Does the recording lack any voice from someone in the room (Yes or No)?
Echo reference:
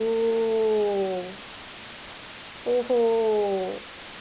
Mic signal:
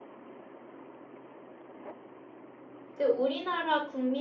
No